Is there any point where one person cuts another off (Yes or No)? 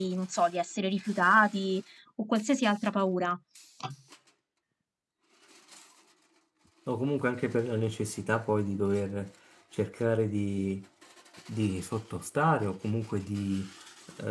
No